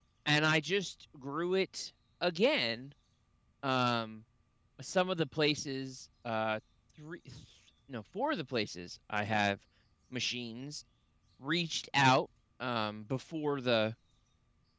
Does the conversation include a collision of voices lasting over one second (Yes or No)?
No